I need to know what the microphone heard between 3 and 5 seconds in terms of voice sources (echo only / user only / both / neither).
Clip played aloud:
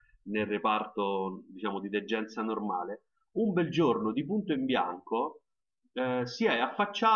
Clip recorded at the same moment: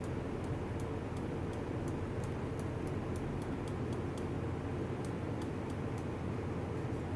neither